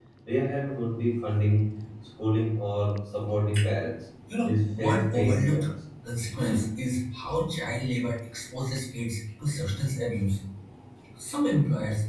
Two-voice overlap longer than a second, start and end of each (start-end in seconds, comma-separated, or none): 4.4-5.6